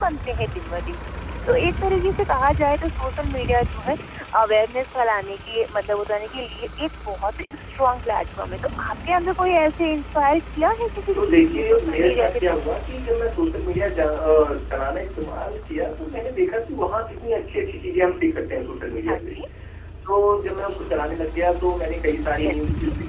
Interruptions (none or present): present